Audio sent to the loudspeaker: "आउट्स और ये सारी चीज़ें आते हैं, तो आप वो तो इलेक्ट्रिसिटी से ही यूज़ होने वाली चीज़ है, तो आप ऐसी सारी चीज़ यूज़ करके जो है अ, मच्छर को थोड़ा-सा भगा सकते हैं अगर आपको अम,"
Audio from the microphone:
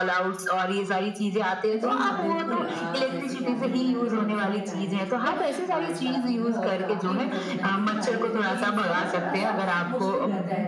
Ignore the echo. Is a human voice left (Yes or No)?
Yes